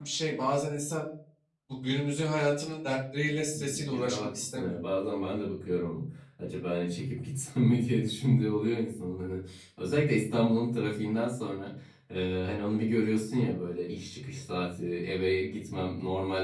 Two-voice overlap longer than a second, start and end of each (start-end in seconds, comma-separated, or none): 3.5-4.8